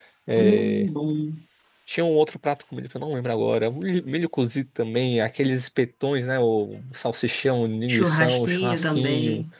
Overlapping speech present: Yes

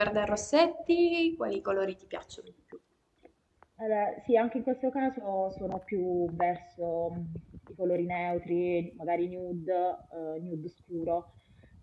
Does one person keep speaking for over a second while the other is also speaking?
No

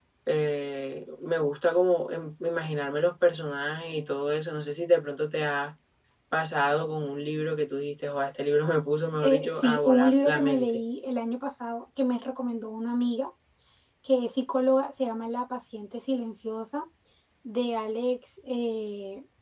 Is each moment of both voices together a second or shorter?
No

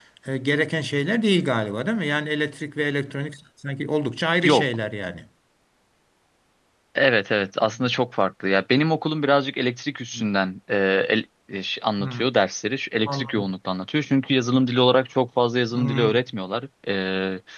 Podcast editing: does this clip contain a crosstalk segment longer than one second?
No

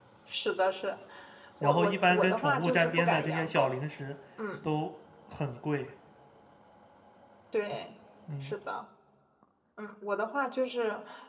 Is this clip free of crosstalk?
No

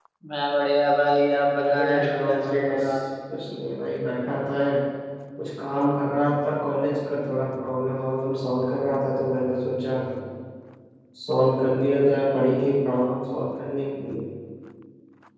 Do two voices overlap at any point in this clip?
Yes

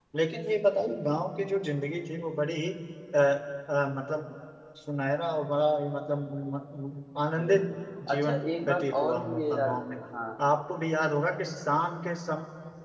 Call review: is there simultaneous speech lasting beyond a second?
Yes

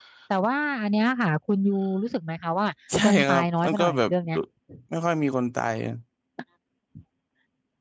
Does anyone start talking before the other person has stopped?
Yes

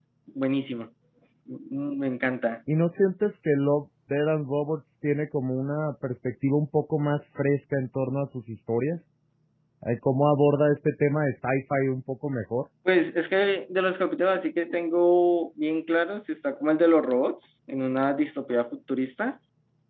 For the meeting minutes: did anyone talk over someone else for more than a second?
No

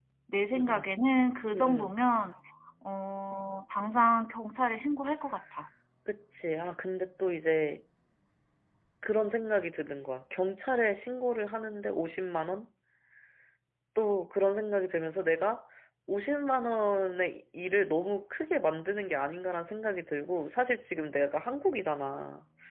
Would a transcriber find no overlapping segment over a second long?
Yes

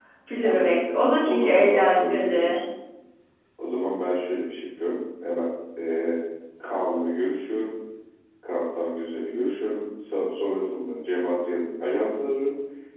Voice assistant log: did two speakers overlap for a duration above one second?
Yes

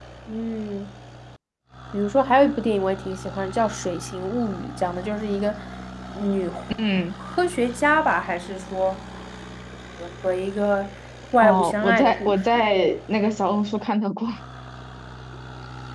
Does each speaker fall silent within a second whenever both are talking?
No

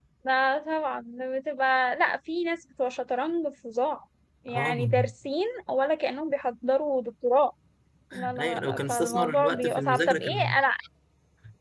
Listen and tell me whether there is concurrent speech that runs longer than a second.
Yes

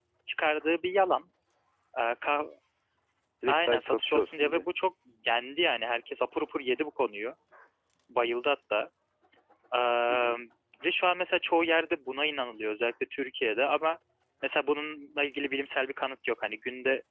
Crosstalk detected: Yes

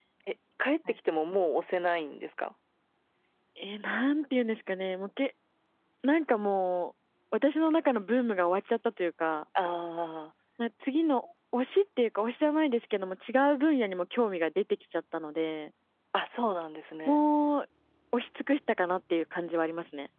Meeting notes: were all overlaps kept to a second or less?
Yes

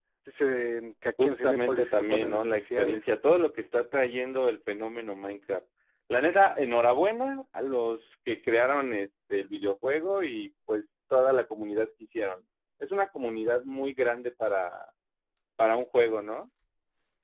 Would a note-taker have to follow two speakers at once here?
Yes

